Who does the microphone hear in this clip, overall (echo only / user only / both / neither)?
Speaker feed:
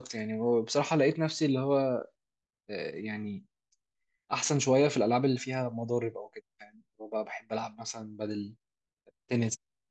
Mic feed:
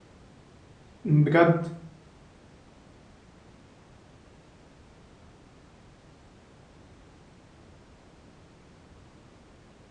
user only